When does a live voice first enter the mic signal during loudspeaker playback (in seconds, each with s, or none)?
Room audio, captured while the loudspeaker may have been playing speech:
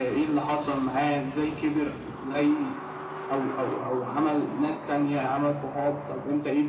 none